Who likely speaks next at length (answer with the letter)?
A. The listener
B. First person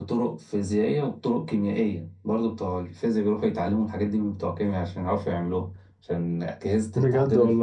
B